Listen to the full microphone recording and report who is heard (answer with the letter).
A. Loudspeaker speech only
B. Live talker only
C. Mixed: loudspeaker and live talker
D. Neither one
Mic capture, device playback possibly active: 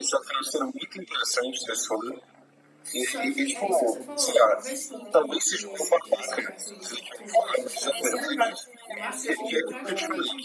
C